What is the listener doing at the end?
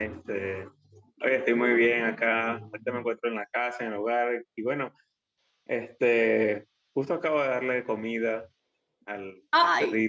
taking over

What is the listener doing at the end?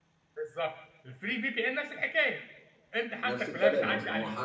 taking over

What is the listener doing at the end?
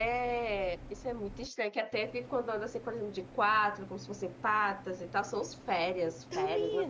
taking over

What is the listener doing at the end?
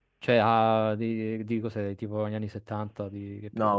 taking over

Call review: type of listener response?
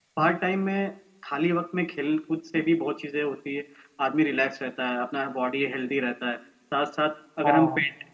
listening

